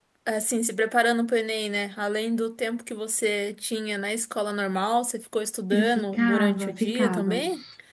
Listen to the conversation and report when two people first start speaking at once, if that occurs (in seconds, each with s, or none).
5.7 s